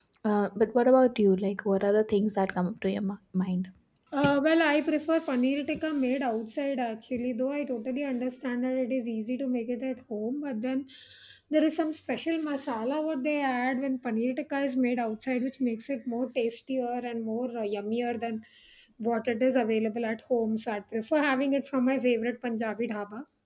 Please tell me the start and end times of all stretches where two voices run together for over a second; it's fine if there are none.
none

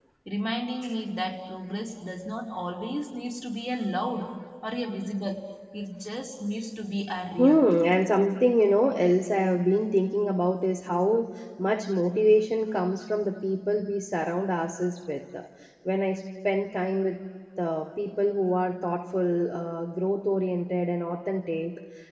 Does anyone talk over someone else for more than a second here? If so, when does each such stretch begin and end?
none

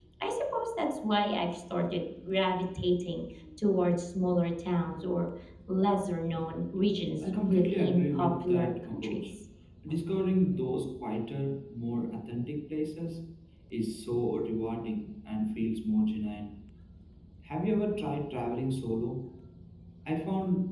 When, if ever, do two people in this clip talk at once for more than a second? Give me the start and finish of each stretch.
7.2-9.3

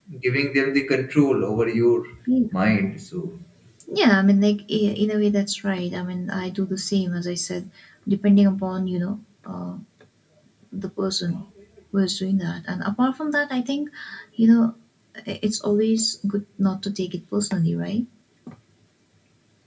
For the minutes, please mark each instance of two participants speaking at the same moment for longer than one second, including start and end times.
none

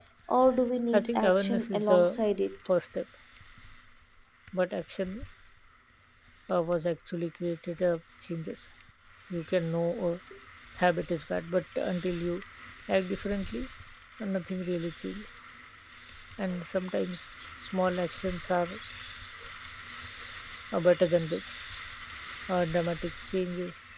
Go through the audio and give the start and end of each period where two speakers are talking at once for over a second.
0.9-2.2

